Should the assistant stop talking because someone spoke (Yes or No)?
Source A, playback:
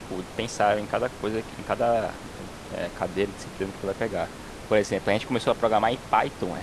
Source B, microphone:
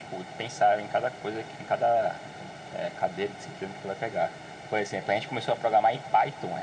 No